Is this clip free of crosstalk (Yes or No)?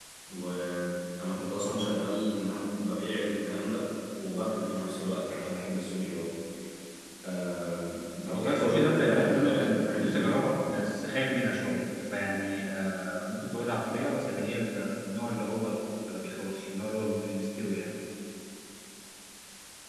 No